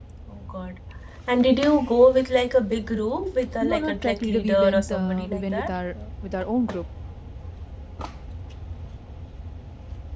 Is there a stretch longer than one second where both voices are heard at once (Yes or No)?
Yes